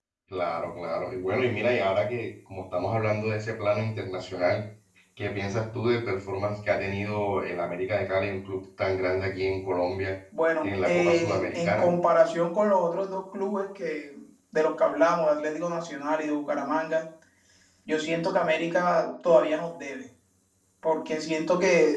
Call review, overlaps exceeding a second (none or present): present